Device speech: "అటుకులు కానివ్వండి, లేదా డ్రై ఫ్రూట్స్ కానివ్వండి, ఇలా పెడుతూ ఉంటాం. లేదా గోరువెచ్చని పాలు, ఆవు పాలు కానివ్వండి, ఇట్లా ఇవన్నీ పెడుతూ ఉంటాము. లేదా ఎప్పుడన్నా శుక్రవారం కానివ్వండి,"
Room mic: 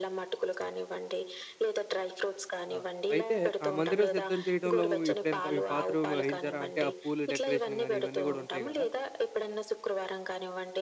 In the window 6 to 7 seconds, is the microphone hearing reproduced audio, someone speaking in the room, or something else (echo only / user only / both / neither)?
both